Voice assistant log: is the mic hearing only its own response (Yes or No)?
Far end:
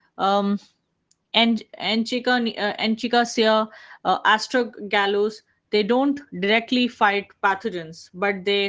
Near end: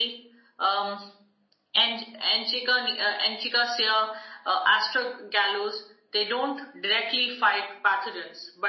Yes